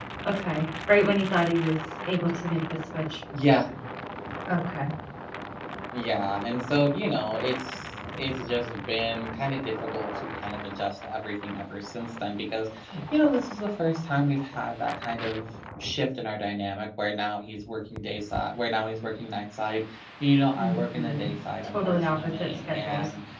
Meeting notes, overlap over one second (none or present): present